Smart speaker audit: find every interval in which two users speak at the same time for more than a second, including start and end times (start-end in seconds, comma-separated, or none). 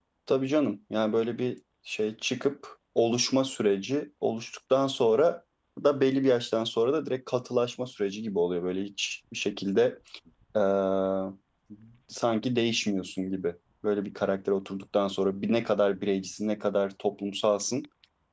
none